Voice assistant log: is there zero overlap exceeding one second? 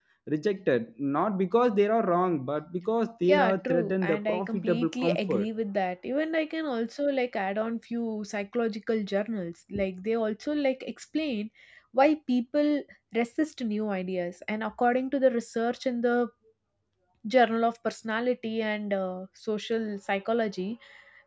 No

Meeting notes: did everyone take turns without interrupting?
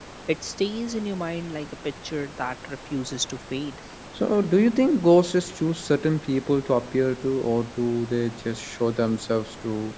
Yes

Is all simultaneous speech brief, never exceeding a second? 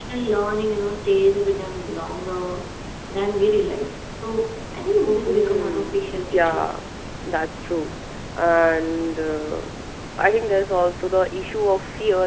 No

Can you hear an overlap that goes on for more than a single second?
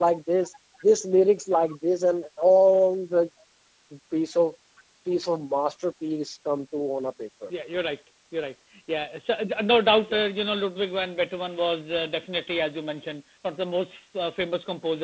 No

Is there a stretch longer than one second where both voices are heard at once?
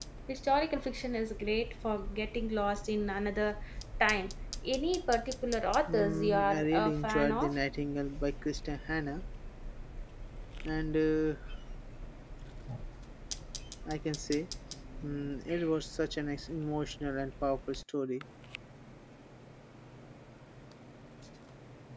Yes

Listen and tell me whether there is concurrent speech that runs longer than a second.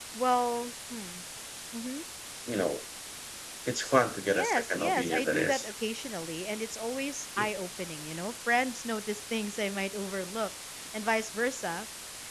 Yes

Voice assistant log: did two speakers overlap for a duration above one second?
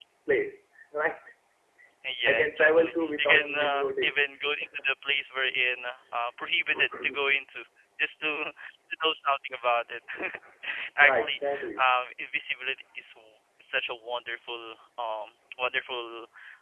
Yes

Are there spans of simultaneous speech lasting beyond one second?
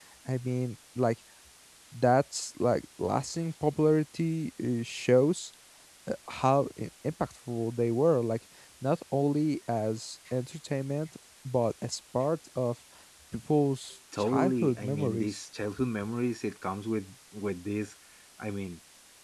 Yes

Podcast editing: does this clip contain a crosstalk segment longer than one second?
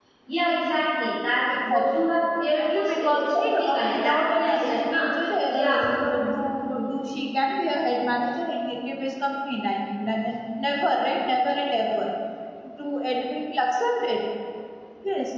Yes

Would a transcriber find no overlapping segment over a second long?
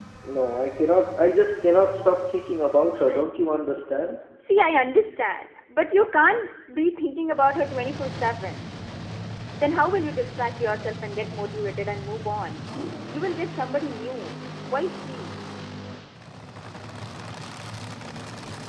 Yes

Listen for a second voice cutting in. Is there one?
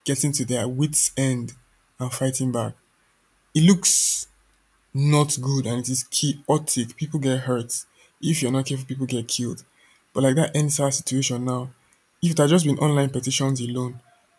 No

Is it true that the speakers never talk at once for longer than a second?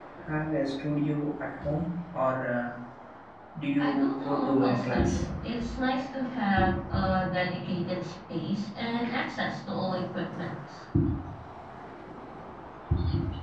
No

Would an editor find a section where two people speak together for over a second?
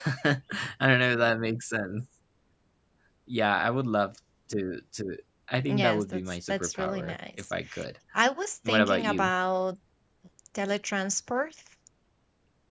Yes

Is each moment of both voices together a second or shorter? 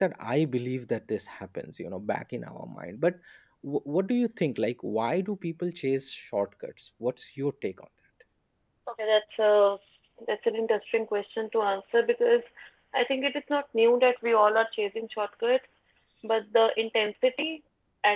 Yes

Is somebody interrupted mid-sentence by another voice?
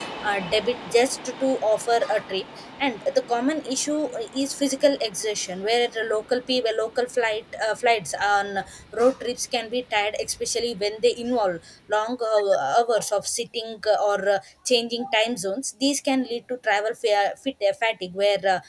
No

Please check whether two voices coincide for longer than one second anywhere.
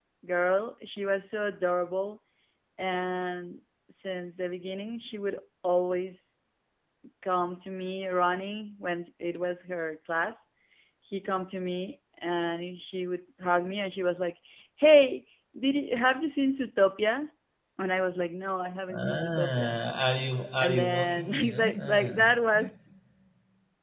Yes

